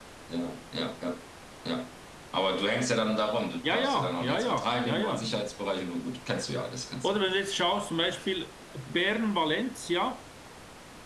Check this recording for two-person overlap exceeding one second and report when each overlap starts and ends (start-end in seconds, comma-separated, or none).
3.6-5.3